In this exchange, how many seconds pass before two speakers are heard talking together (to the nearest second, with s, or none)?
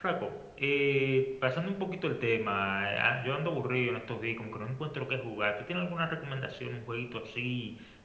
none